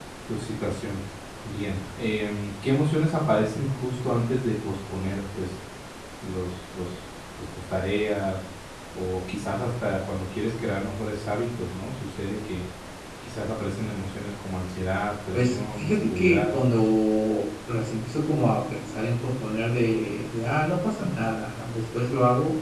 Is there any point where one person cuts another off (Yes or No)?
Yes